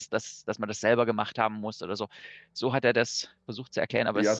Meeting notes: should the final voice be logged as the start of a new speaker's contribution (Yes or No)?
Yes